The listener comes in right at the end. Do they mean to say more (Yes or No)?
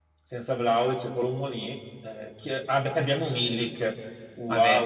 Yes